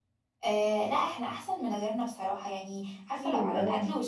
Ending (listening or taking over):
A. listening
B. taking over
A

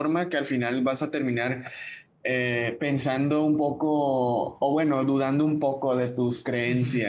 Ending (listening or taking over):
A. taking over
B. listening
A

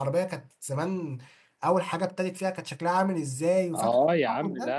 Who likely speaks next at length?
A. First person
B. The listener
B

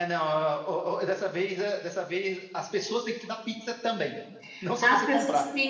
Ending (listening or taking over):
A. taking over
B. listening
A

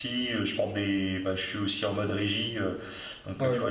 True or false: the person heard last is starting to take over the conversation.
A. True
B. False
B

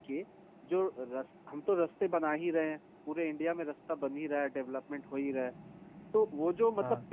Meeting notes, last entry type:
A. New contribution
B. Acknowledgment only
B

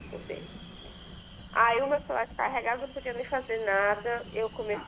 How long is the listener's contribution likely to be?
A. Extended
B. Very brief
B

